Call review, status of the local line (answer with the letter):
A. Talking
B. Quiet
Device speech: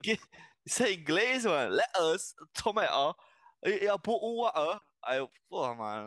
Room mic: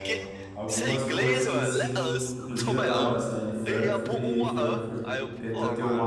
A